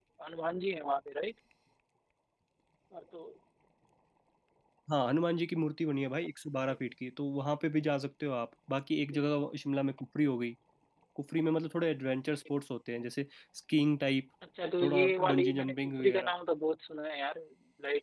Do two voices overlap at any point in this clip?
Yes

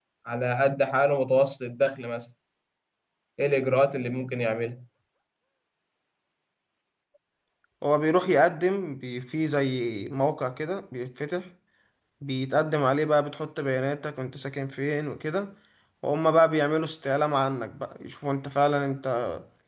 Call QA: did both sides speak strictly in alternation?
Yes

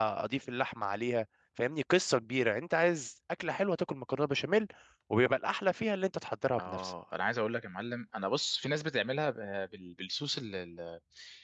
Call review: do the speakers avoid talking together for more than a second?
Yes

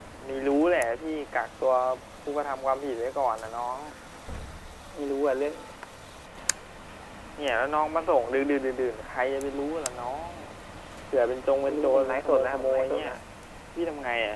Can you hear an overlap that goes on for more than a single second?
Yes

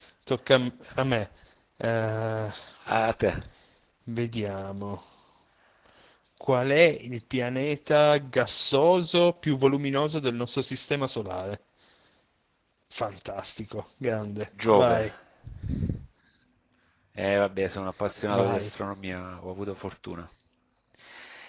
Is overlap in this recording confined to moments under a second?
Yes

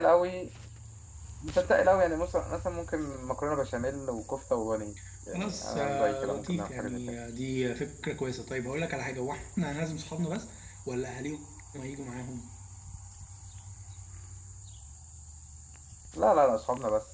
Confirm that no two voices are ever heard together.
No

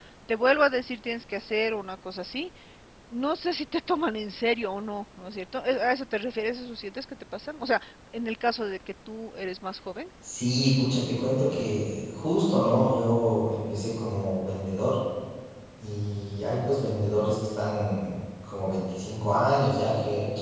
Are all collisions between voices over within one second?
Yes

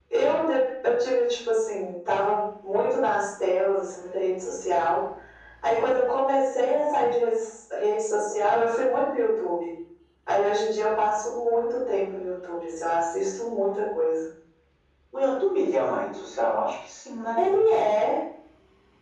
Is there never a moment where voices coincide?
Yes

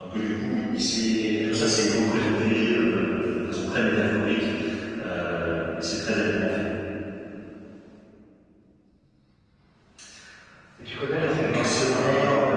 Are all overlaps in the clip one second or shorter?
No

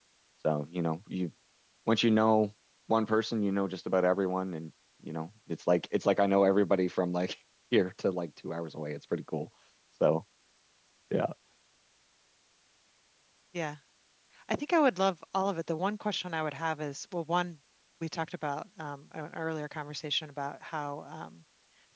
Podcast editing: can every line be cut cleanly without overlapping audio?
Yes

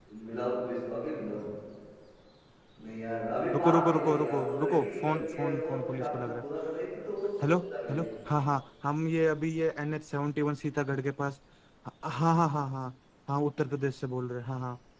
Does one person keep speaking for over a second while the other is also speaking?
Yes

